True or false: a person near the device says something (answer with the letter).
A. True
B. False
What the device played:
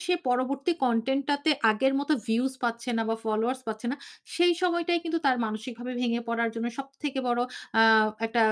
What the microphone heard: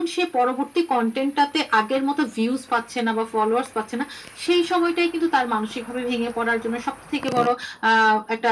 B